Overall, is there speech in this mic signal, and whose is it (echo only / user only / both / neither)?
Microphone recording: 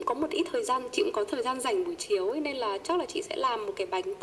echo only